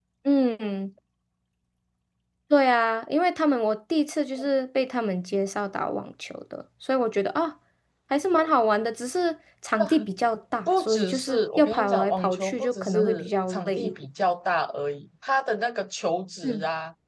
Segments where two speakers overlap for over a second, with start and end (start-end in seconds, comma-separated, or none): 10.7-13.9